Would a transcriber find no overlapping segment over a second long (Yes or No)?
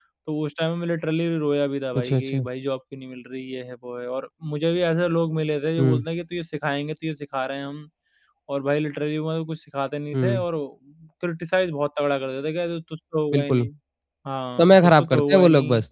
No